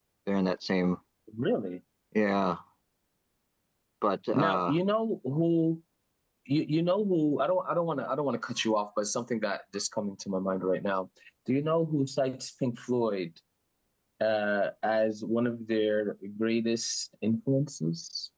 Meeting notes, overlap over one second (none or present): none